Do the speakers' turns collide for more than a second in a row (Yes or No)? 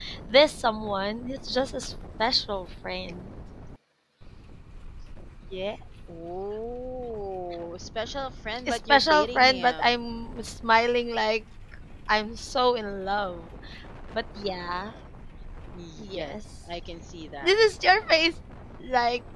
Yes